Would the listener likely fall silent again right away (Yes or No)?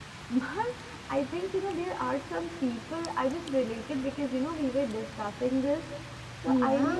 Yes